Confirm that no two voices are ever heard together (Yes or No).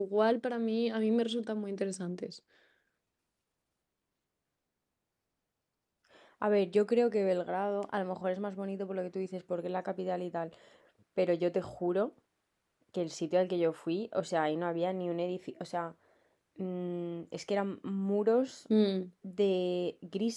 Yes